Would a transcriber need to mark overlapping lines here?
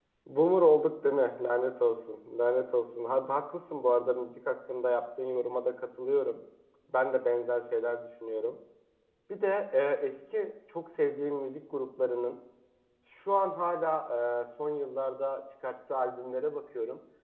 No

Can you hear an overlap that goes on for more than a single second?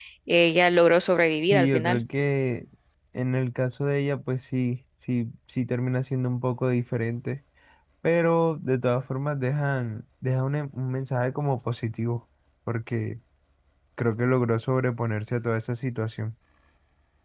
No

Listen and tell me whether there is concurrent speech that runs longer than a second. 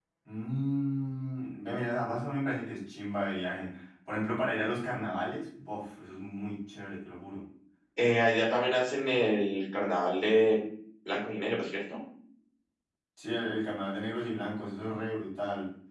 No

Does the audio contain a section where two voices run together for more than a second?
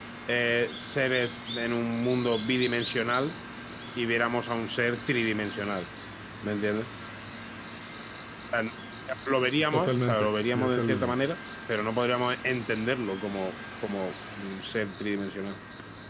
Yes, from 9.7 s

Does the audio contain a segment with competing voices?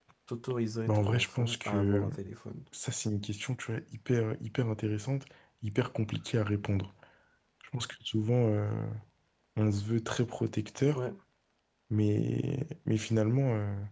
Yes, from 0.9 s

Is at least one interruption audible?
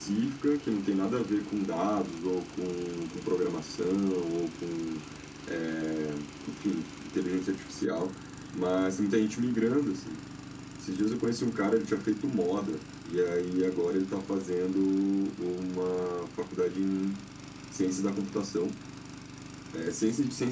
No

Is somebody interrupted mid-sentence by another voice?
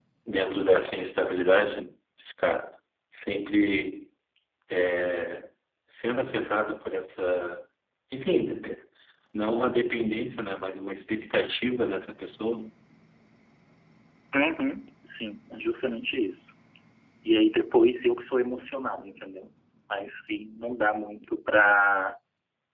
No

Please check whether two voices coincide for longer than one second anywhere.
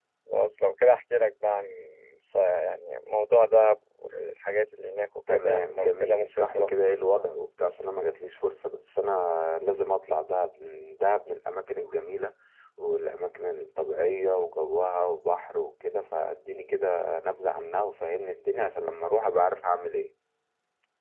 Yes, from 5.3 s

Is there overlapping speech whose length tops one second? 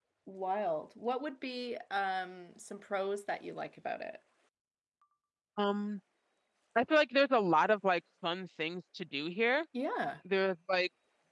No

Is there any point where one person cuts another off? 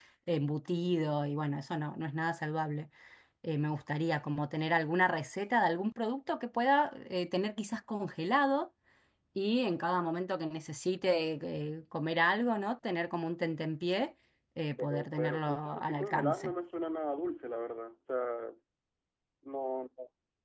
Yes, from 14.8 s

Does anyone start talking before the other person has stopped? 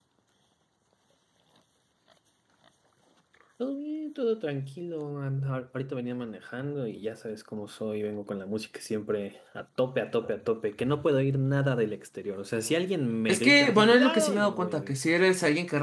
Yes, from 13.3 s

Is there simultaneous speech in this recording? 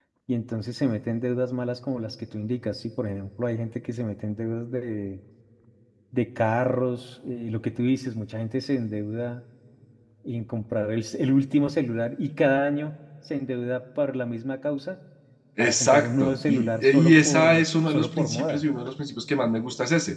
Yes, from 15.6 s

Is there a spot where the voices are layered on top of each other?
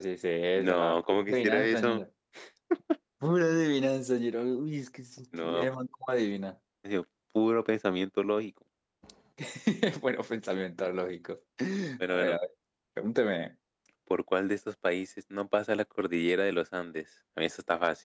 Yes, from 0.6 s

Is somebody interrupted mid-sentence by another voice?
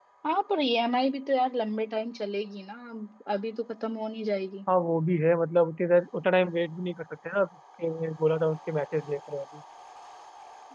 No

